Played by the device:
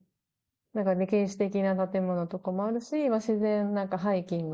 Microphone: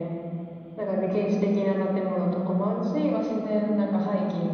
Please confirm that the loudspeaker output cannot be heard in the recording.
No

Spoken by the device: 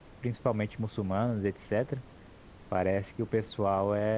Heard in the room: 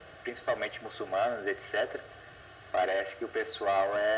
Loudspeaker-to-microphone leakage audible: Yes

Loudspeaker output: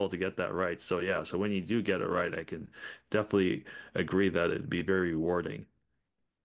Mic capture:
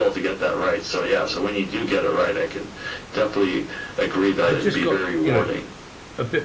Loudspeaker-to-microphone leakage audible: Yes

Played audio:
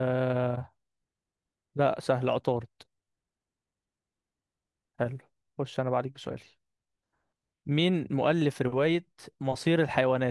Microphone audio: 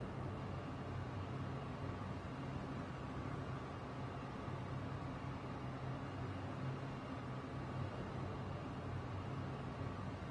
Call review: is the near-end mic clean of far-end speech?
Yes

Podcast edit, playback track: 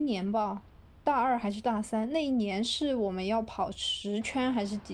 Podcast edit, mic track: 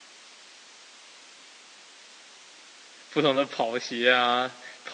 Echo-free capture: Yes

